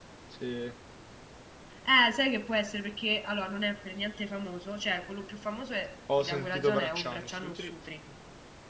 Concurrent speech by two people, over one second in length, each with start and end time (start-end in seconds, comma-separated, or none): 6.2-7.7